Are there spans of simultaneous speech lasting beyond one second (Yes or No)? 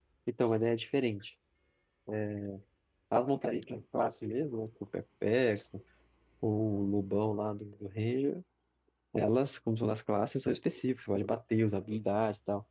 No